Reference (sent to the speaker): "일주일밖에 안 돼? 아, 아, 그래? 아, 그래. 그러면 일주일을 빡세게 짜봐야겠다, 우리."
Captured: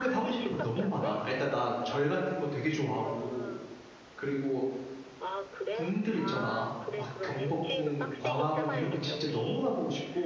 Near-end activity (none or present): present